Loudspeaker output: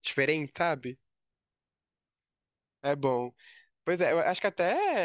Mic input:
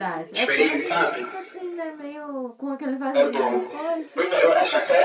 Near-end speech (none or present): present